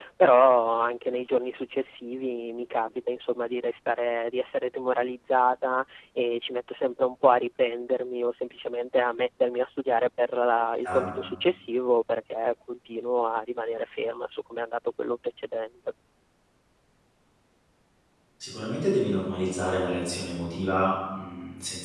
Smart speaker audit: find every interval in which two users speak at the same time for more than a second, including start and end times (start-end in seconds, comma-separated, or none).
none